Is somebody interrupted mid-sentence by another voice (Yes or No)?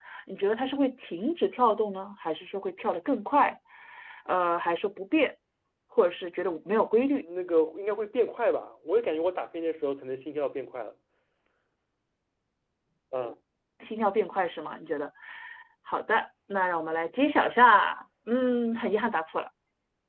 No